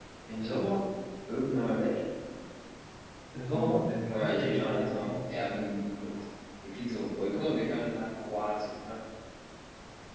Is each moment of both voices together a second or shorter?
No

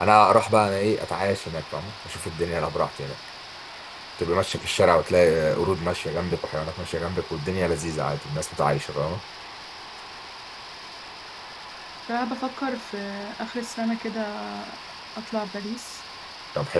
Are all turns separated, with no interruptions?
Yes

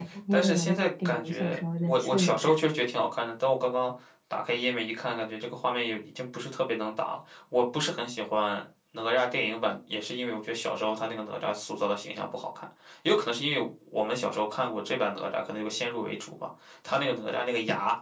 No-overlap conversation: No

